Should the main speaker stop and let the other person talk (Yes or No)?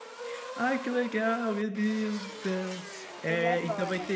No